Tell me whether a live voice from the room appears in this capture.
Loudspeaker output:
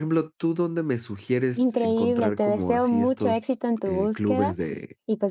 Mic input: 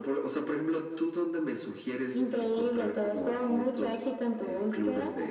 No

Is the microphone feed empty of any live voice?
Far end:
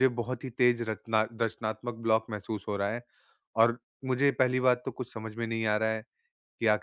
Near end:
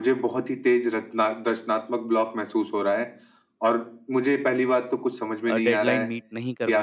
No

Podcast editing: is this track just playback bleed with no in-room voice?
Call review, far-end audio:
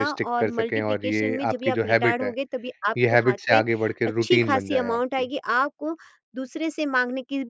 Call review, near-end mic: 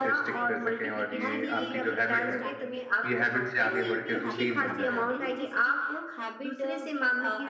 No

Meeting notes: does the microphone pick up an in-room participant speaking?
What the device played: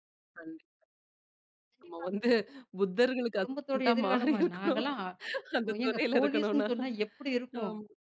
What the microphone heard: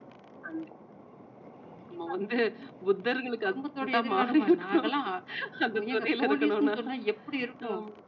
No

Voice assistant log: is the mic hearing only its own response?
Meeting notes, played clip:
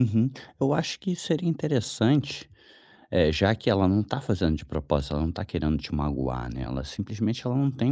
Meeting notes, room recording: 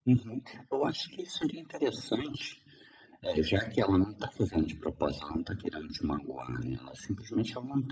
Yes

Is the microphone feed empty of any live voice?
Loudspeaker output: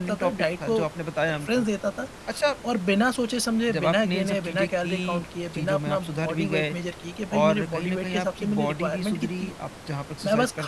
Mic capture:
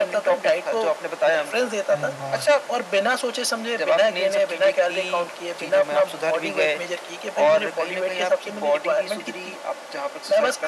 No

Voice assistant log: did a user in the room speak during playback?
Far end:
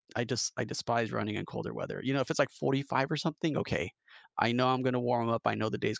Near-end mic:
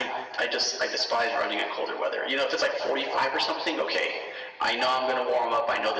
No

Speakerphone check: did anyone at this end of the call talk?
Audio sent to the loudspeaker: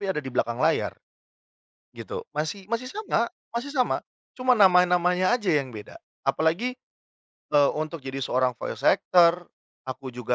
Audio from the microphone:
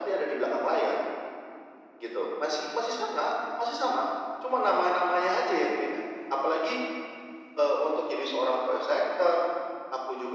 No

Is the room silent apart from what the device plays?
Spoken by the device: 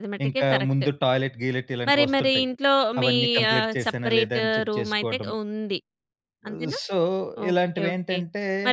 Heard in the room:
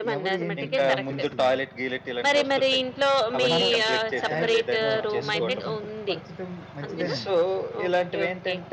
No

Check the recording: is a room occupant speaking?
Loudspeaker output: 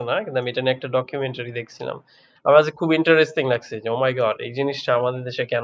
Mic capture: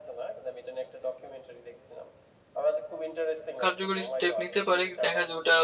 Yes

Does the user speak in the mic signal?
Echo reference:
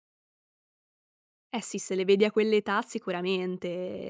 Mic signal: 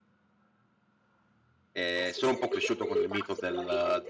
Yes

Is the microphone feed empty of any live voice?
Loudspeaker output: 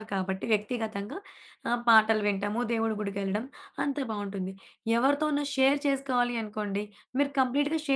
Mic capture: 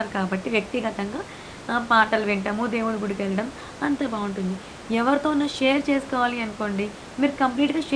Yes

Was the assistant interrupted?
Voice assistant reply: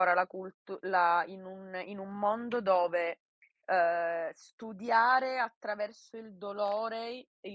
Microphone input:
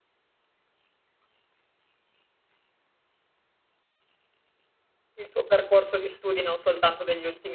Yes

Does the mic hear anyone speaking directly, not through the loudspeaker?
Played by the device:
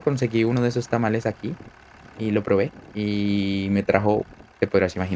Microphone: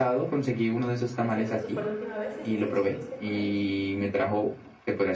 Yes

